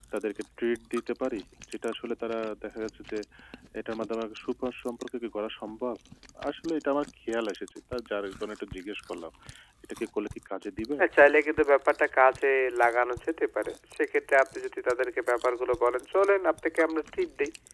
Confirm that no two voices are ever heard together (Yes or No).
Yes